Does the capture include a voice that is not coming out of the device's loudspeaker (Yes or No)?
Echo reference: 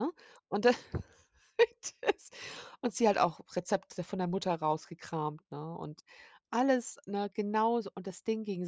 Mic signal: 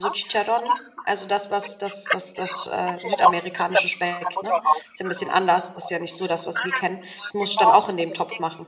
Yes